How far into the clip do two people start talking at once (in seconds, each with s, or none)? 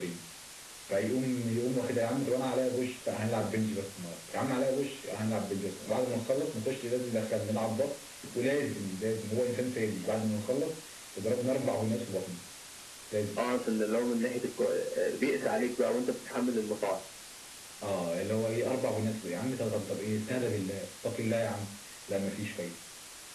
none